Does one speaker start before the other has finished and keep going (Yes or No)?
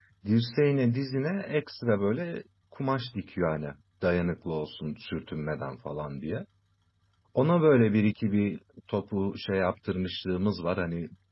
No